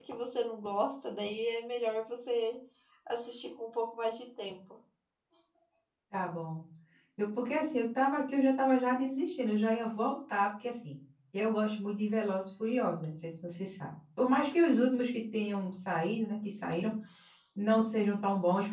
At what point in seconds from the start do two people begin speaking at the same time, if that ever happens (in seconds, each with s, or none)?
none